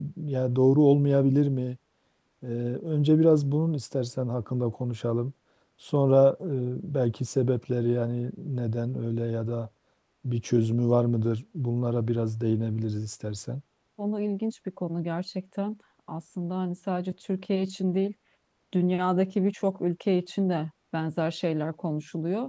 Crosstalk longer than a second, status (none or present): none